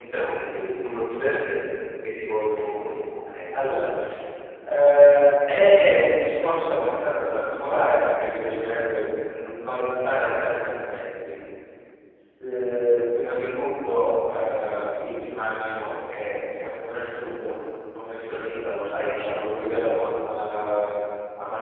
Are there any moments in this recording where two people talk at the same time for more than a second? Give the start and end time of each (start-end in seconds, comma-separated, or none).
none